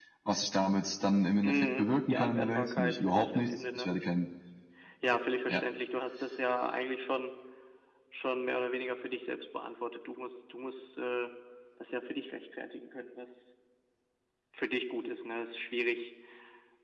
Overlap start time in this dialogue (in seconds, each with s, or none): 1.4 s